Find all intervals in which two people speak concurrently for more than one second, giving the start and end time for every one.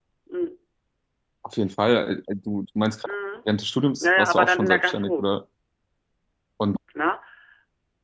4.0-5.3

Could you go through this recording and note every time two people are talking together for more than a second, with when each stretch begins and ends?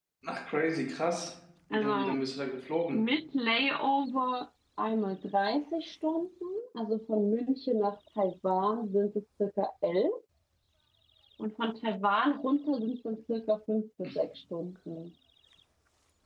none

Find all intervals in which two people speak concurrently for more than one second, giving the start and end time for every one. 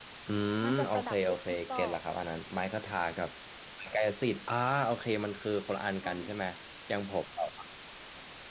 0.6-1.9

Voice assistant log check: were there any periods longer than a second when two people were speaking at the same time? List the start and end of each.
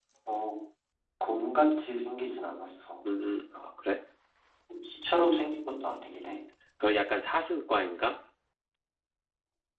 none

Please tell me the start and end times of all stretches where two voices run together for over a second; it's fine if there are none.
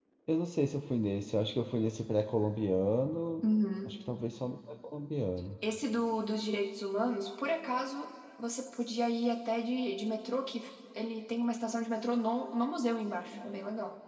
none

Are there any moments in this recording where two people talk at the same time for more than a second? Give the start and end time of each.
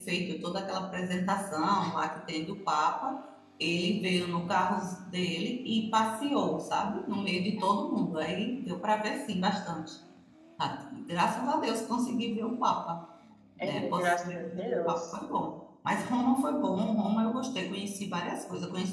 13.6-15.0

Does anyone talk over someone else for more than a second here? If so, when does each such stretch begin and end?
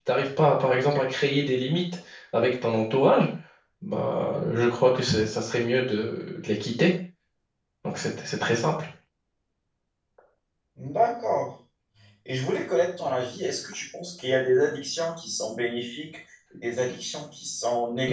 none

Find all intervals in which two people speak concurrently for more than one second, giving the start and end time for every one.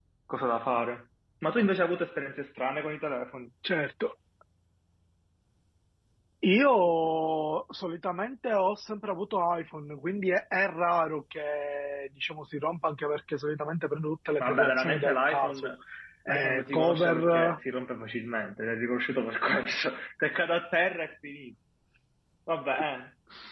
14.4-15.7, 16.3-17.6

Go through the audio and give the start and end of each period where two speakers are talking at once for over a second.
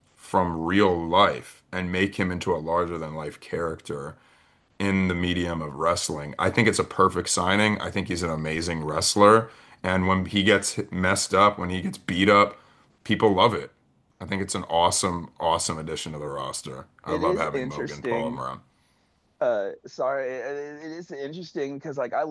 17.1-18.4

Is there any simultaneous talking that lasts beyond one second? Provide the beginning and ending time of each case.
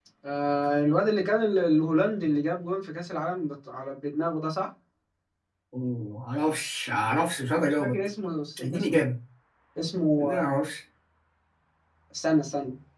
none

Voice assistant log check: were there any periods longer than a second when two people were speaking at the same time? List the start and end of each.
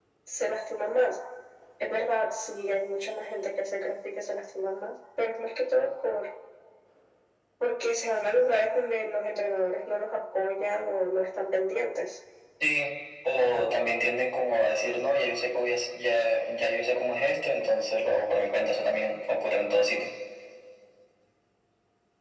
none

